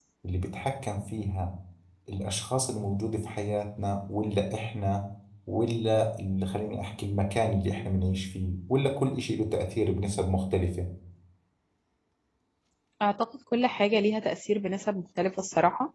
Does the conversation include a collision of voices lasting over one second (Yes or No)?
No